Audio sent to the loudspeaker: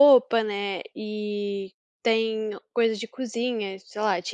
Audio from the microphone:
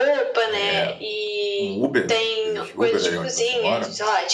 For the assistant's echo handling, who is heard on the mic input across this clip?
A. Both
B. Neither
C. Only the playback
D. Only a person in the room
A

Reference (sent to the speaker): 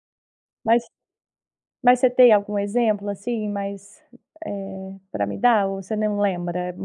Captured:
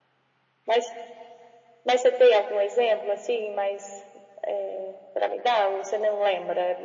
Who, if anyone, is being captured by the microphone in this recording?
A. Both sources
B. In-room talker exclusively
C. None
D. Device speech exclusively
D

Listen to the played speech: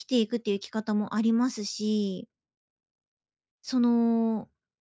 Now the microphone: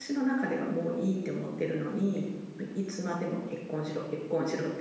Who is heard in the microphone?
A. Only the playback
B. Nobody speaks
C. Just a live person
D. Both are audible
C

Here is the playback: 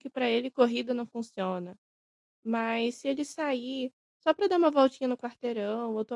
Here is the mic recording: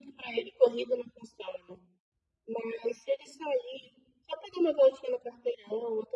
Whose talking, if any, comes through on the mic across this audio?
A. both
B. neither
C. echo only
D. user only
C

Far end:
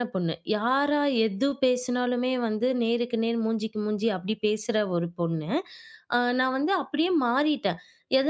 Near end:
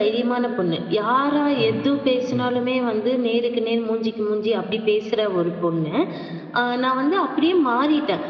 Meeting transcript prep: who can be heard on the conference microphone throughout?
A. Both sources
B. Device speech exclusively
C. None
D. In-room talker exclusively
A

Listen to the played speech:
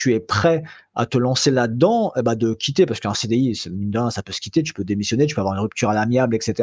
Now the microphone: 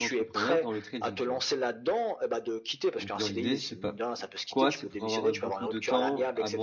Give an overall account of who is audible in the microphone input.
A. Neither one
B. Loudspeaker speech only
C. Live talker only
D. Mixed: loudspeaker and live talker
D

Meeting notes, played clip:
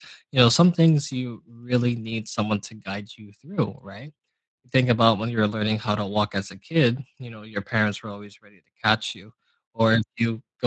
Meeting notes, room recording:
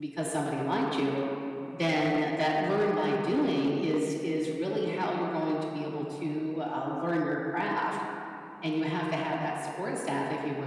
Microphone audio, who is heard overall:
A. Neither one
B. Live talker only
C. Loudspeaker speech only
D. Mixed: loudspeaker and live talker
B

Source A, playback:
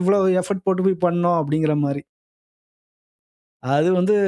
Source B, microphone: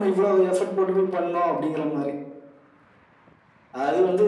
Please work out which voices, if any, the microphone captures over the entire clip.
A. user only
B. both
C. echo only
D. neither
C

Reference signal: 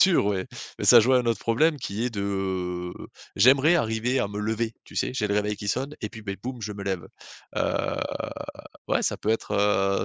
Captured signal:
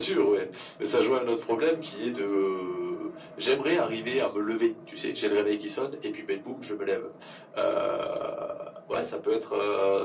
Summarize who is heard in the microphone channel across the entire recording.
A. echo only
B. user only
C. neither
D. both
A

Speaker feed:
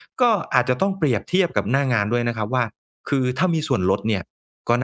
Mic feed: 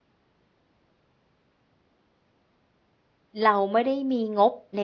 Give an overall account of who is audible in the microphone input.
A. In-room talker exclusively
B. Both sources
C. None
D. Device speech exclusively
A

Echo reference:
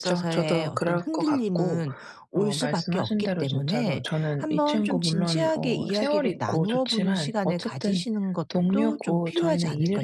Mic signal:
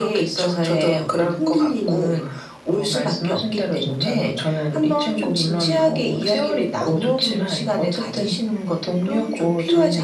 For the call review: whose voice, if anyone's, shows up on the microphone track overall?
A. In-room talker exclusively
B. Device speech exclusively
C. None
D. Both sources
B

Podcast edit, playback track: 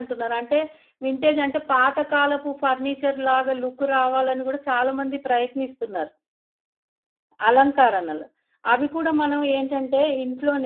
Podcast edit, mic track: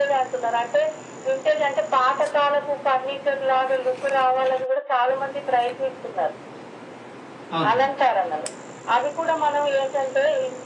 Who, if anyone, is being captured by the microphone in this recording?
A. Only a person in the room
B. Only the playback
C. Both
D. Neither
C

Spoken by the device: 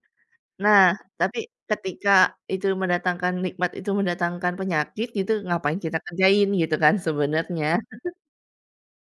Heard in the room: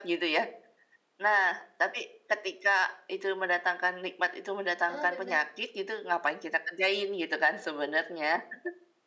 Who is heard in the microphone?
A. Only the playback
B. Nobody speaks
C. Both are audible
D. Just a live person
C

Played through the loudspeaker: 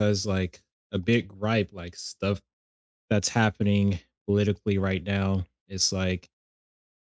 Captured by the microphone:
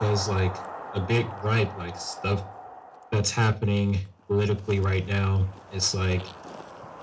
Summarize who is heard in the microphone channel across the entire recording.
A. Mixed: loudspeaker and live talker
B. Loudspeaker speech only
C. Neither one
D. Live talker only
B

